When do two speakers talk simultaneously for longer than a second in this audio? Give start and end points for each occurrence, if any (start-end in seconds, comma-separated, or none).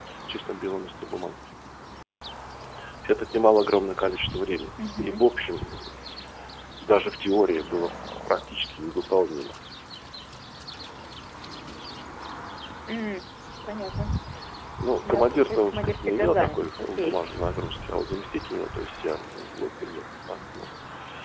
15.0-17.2